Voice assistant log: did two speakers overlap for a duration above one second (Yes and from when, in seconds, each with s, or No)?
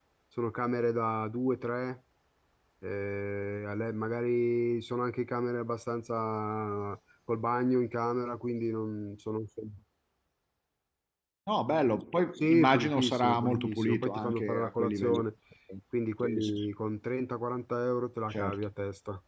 Yes, from 12.4 s